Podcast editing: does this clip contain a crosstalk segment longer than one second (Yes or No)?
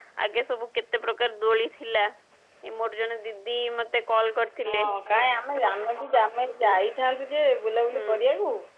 No